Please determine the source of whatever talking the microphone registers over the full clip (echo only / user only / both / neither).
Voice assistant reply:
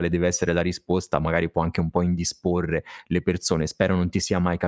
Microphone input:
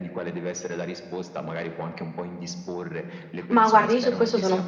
both